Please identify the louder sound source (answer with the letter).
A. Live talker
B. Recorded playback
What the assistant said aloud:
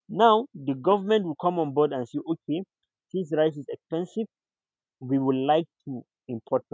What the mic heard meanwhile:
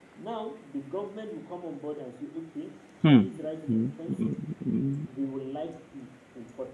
A